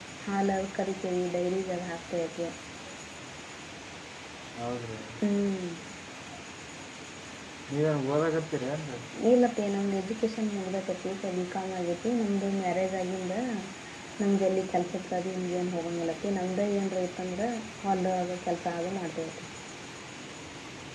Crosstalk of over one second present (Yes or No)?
No